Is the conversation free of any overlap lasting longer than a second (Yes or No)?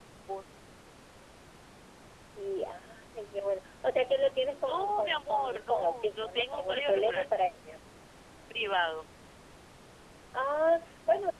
No